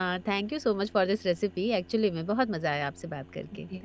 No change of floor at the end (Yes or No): No